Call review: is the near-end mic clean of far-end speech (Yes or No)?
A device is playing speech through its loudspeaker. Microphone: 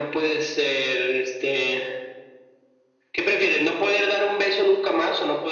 No